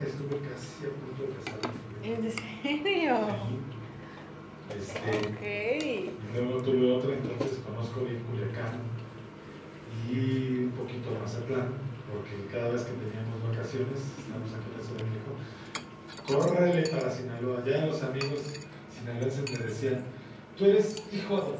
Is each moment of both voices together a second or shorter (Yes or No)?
Yes